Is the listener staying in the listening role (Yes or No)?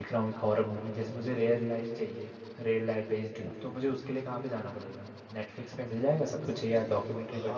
No